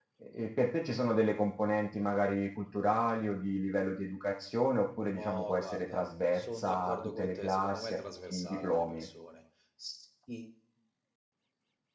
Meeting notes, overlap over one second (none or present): present